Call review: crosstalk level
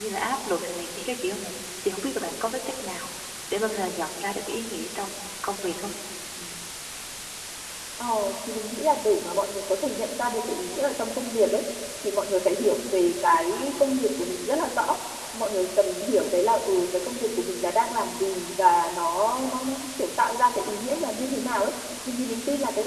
none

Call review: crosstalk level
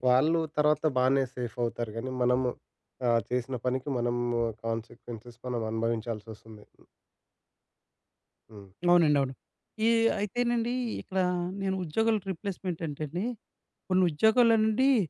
none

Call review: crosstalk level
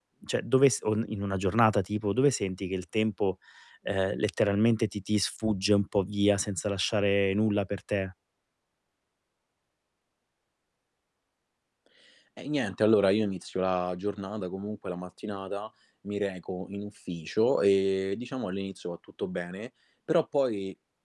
none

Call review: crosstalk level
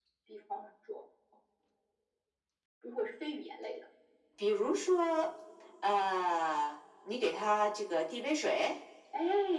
none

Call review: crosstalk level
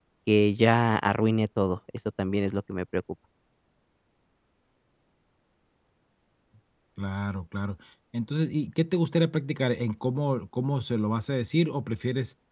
none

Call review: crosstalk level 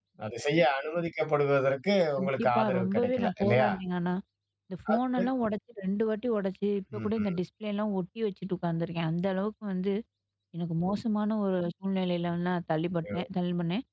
present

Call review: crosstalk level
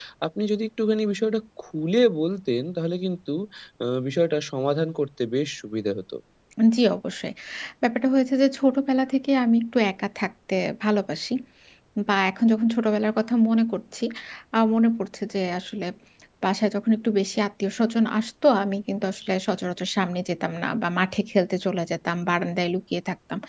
none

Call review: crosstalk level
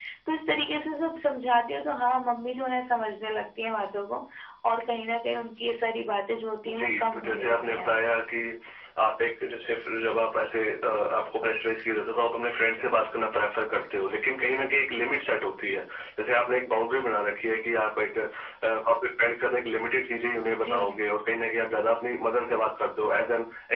present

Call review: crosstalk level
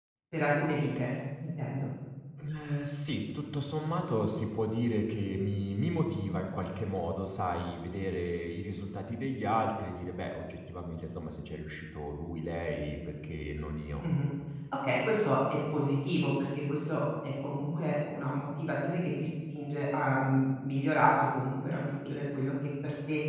none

